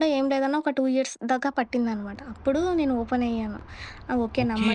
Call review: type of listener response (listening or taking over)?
taking over